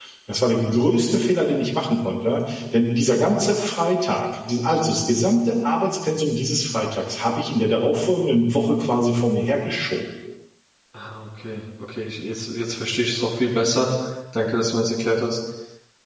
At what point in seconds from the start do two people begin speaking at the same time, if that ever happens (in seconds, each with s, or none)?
none